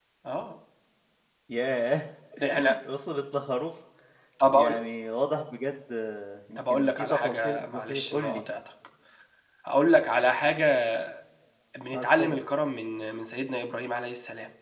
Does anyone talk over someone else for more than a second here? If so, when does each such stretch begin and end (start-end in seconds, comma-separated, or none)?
6.6-8.4